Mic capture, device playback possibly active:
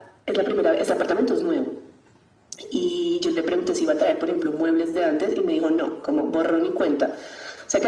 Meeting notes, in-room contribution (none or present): none